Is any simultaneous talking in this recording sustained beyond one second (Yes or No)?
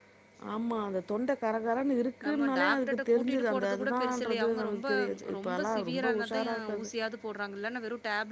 Yes